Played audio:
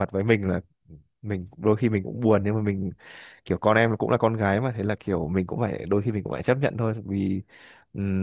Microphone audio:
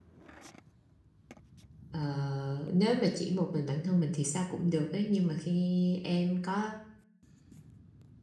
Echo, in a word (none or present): none